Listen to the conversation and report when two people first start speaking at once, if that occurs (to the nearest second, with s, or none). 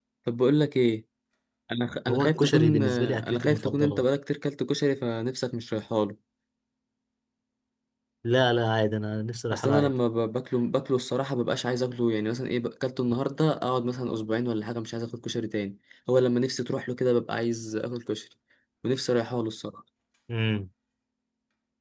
2 s